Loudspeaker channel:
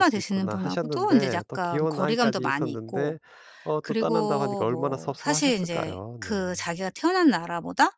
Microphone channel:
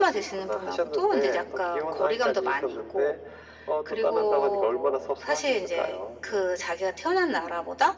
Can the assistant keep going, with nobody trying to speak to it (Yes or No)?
Yes